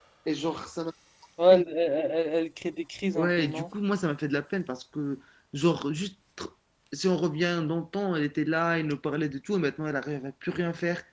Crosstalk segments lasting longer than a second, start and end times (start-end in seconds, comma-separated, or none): none